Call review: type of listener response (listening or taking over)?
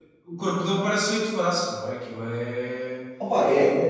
taking over